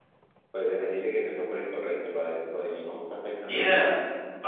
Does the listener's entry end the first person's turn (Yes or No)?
Yes